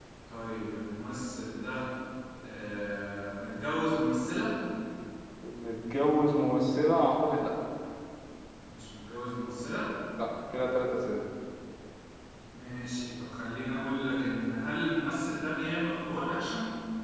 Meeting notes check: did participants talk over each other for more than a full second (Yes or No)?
No